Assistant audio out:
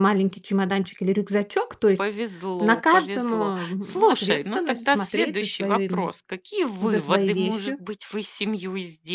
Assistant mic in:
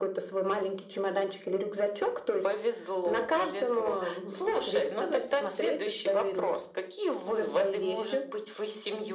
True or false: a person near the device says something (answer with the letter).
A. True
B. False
B